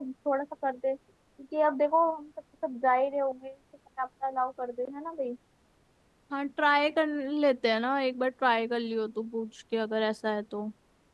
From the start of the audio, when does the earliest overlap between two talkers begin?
none

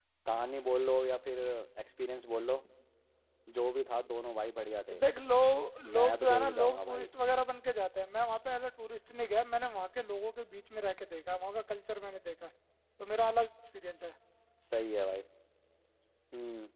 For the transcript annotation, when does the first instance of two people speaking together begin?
5.8 s

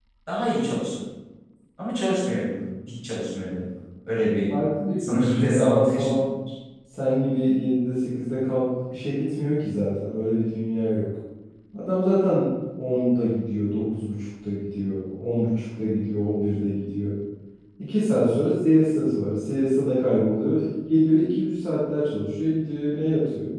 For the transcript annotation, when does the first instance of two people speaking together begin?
5.0 s

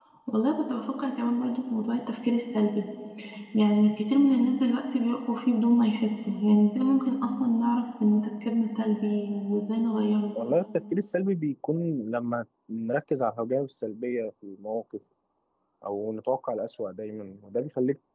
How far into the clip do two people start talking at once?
none

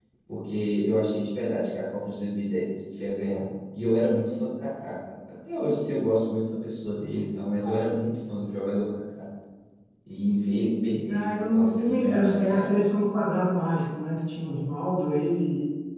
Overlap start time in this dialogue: 11.1 s

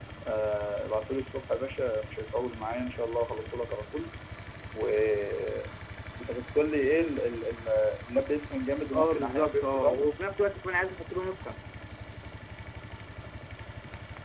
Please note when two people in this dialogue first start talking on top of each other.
8.9 s

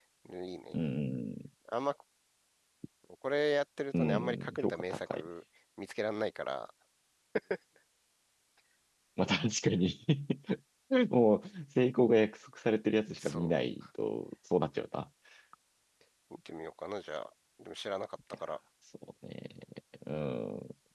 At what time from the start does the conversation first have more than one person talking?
4.0 s

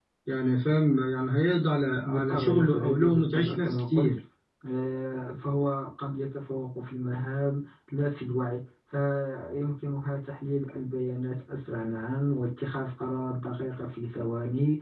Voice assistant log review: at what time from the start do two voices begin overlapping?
2.0 s

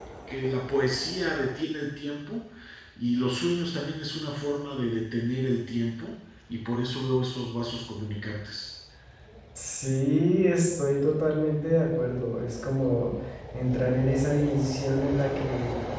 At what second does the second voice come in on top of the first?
none

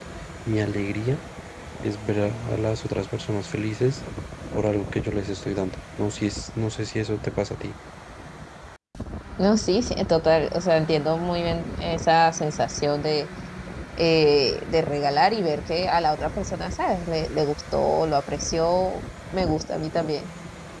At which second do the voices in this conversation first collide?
none

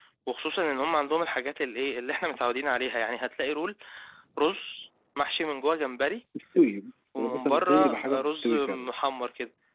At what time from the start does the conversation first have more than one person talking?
7.2 s

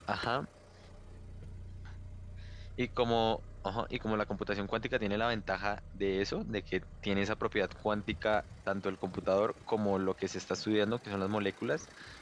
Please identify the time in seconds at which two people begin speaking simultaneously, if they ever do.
none

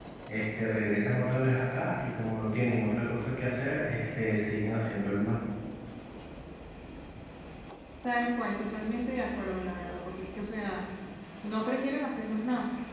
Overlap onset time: none

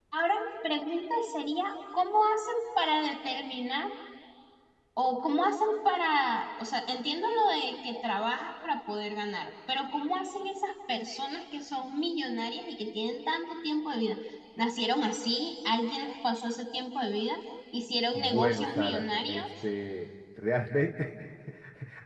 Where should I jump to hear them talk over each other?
18.1 s

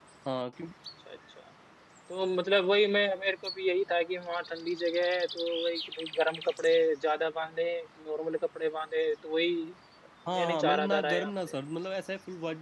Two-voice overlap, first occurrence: 10.3 s

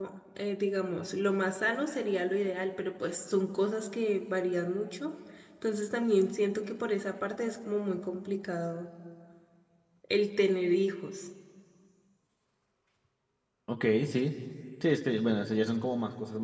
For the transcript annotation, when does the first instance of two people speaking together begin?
none

